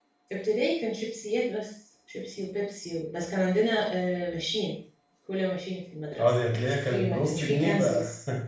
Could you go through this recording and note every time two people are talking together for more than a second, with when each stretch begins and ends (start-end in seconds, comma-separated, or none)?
6.2-7.9